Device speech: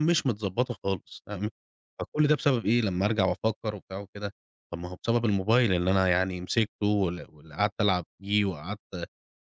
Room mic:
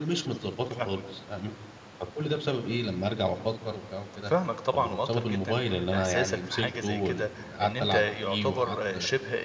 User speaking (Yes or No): Yes